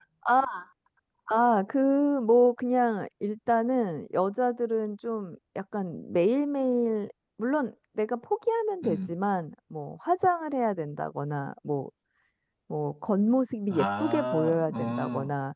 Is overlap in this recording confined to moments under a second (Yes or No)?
No